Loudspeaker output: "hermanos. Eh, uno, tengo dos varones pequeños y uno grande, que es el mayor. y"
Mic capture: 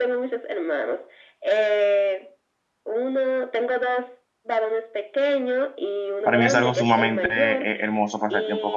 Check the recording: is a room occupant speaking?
Yes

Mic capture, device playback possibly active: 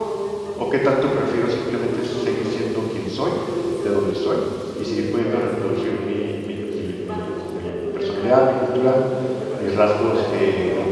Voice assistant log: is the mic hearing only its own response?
No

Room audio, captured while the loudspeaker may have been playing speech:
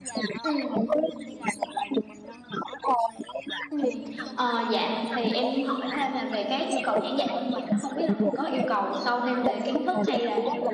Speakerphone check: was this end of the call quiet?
No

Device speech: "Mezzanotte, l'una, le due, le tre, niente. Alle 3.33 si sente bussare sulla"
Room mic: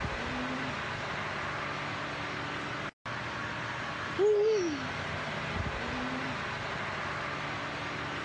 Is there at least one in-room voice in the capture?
No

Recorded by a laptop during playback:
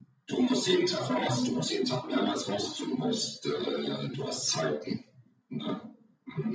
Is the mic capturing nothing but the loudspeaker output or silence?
Yes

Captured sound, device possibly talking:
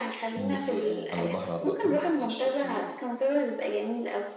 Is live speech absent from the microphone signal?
No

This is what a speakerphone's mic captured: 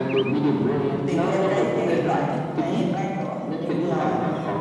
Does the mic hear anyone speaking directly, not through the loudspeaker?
No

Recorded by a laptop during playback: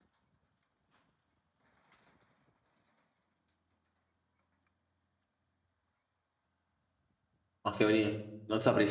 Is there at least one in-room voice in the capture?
Yes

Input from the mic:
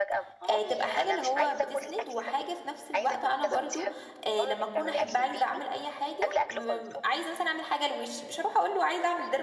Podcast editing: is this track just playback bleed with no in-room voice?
No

